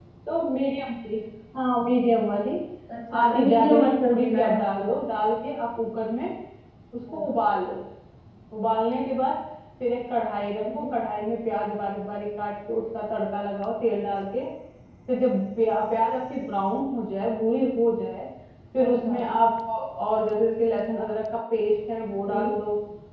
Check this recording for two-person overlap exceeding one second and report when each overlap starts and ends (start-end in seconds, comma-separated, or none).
3.1-4.9